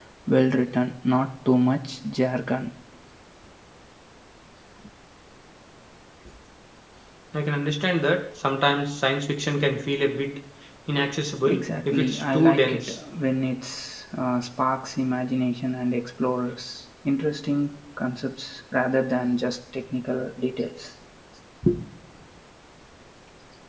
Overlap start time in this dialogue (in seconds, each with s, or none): 11.5 s